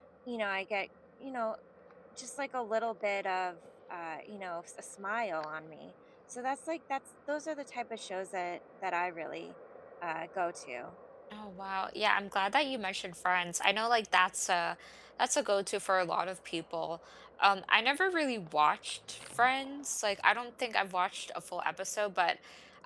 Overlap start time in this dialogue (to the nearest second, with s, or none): none